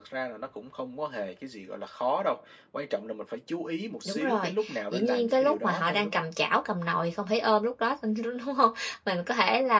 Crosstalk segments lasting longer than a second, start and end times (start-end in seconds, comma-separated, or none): 4.0-6.2